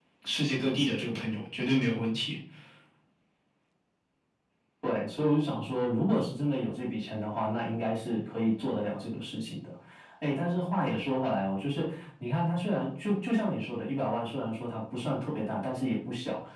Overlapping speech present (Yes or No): No